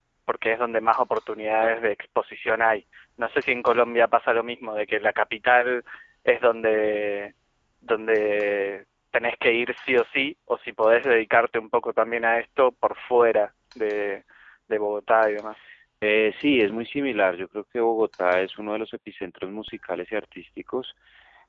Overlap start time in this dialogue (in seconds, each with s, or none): none